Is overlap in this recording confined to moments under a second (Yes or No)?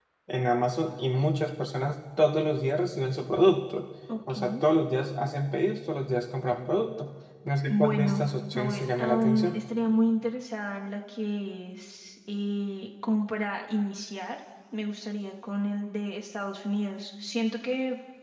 No